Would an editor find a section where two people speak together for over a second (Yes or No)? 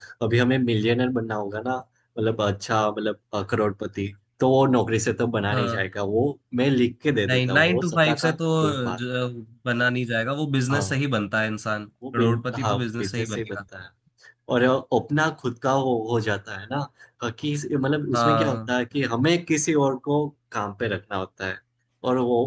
Yes